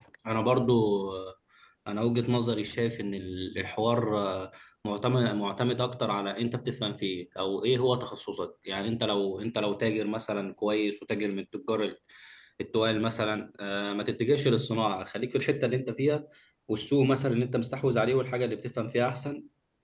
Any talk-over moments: No

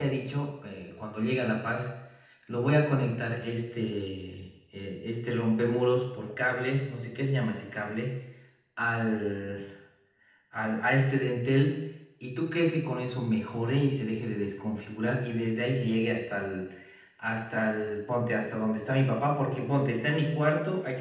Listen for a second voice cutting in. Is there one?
No

